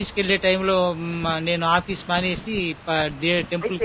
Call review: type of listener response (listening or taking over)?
taking over